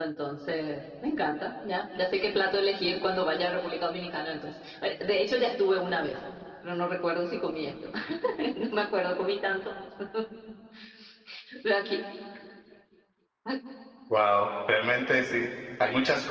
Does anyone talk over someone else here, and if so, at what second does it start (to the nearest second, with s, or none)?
none